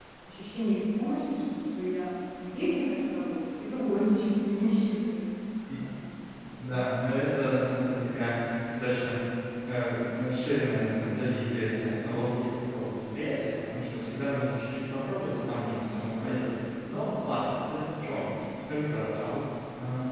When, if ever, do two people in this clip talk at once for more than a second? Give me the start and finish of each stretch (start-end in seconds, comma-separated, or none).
none